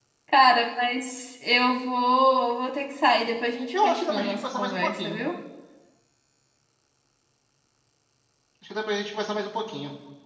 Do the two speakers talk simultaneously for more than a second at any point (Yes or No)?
Yes